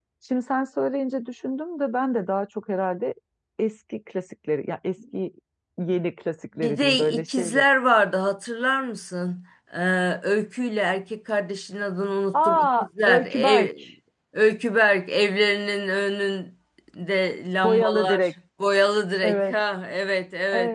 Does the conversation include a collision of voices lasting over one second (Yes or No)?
Yes